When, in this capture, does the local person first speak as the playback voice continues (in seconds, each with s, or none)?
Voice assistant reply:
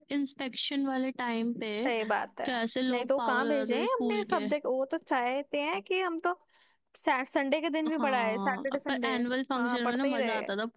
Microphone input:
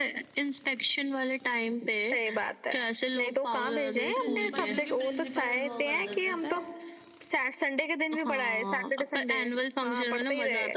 4.2 s